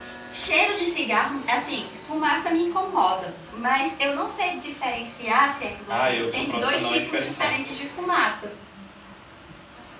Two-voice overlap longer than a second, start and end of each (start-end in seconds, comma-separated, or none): 5.9-7.5